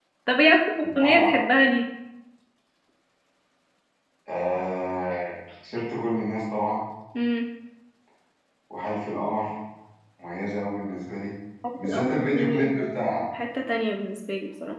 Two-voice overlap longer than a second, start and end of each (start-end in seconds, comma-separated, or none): 11.8-13.2